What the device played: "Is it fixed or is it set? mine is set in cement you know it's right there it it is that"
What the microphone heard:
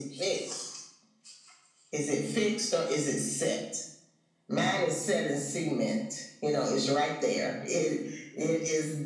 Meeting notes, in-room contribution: none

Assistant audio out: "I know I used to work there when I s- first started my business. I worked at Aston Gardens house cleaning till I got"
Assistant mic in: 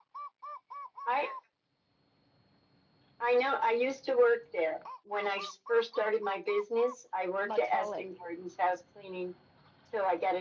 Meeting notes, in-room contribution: present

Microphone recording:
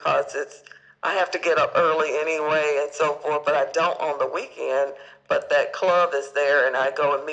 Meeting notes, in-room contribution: none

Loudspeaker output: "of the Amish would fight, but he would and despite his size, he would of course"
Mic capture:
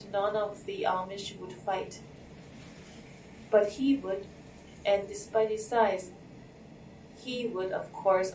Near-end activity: none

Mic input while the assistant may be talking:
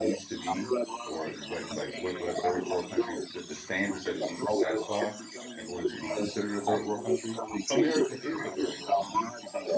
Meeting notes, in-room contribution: present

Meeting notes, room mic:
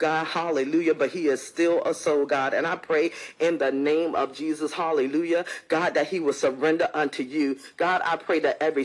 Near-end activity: none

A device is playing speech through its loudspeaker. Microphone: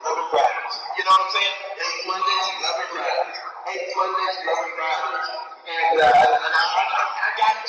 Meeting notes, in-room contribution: none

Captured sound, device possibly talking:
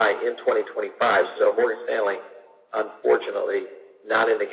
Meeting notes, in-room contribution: none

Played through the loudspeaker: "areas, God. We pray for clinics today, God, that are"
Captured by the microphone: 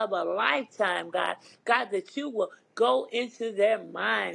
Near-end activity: present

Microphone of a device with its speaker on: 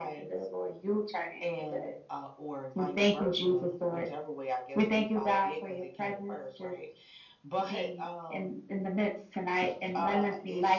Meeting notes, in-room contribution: none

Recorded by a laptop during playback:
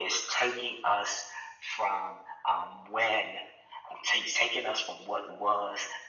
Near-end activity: none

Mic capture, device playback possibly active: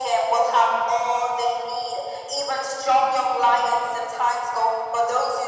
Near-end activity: none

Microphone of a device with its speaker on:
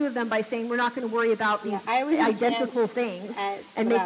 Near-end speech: present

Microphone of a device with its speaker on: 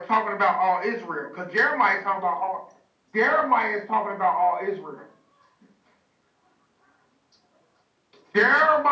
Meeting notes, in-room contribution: none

